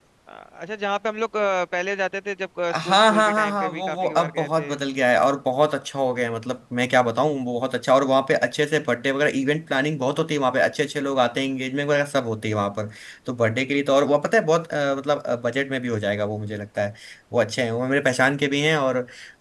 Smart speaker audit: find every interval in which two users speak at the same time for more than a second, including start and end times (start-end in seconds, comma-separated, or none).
2.7-4.7